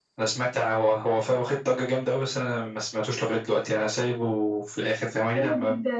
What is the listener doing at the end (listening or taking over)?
taking over